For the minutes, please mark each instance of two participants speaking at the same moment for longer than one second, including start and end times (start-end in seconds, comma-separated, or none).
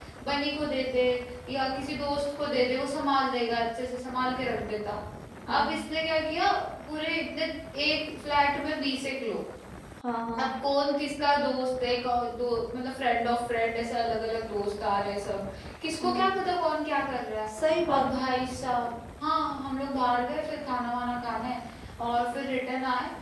none